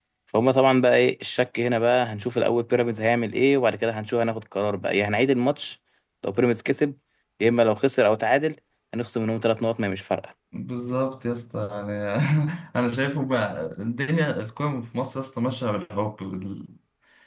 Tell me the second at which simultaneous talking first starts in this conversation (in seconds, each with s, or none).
none